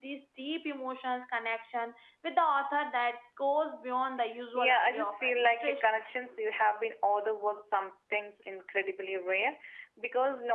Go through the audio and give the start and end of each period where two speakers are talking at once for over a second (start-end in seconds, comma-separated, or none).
4.6-5.9